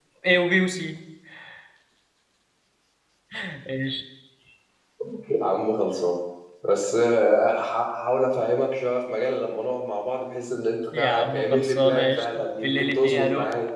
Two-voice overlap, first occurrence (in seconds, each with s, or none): 10.9 s